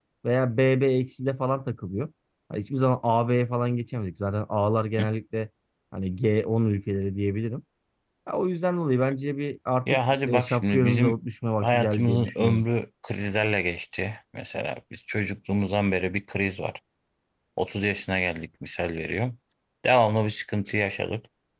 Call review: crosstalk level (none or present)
present